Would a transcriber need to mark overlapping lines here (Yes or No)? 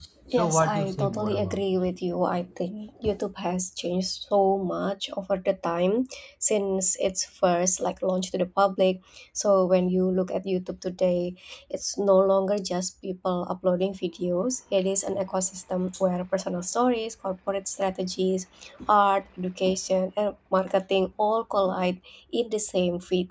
Yes